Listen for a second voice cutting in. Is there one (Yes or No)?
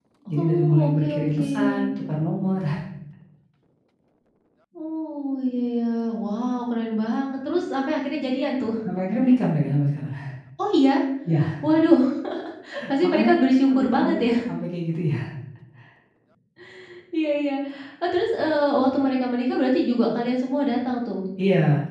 Yes